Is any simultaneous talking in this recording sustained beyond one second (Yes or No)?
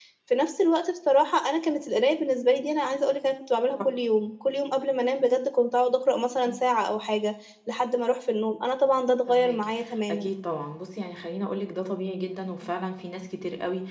No